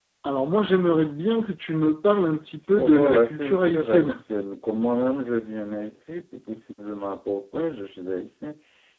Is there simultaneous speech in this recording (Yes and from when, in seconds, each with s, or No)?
Yes, from 2.8 s